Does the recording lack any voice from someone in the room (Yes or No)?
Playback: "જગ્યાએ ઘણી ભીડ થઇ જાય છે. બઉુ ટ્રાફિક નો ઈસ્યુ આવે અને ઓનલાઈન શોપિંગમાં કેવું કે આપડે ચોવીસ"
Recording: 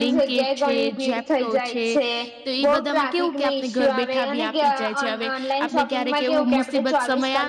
No